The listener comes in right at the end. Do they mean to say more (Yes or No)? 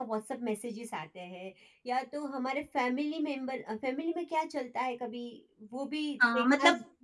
Yes